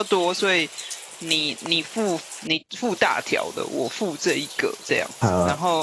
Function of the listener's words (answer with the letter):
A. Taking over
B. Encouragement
A